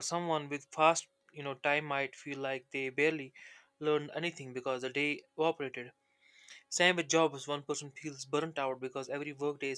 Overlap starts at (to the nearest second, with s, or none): none